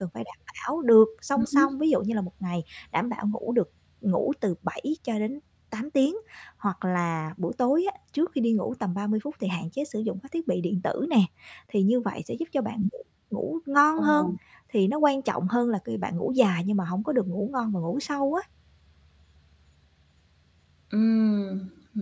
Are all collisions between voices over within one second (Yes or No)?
Yes